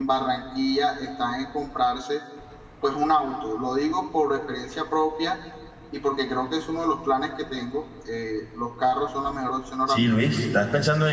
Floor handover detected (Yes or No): Yes